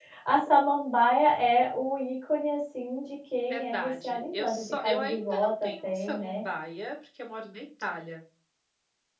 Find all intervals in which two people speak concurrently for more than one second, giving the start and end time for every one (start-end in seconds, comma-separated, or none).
3.5-6.4